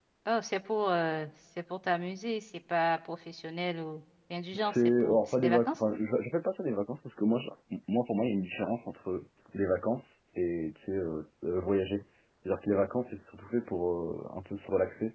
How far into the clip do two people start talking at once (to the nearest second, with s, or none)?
5 s